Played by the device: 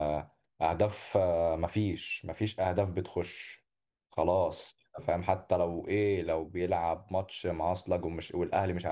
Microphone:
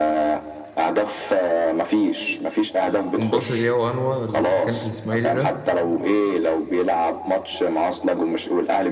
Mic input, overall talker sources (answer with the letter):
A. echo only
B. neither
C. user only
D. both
D